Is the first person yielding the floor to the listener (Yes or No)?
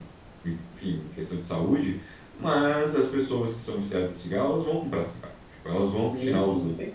Yes